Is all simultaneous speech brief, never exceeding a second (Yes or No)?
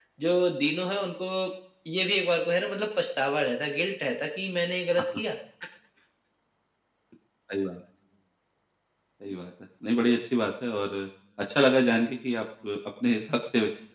Yes